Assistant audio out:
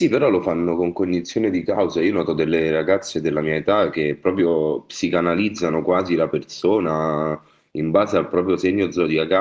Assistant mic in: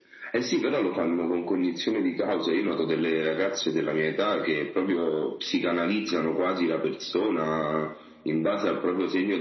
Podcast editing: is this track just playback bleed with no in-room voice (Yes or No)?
Yes